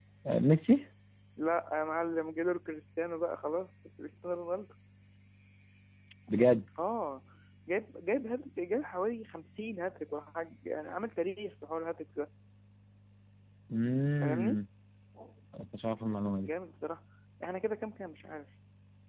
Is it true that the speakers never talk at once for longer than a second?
Yes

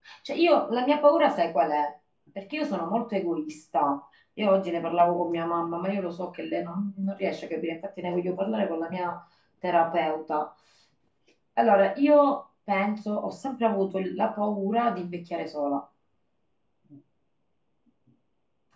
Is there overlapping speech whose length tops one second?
No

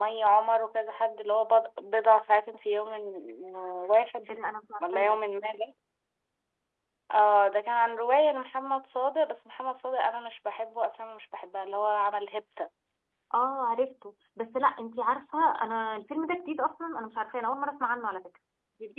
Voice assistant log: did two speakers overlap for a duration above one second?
No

